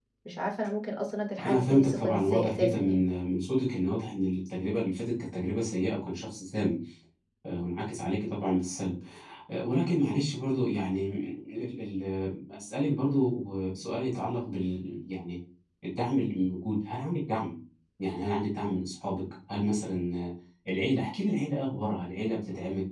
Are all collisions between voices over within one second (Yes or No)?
No